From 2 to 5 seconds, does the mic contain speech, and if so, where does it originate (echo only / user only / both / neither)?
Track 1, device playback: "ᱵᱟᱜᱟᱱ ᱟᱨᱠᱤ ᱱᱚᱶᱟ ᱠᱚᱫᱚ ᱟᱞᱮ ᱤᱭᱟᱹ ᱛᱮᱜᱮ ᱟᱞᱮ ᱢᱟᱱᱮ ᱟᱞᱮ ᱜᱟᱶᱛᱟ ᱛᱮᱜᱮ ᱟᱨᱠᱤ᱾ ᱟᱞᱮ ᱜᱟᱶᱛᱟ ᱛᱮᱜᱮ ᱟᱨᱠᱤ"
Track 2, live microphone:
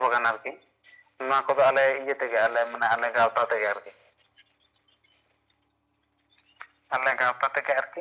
echo only